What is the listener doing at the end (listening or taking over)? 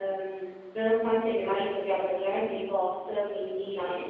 listening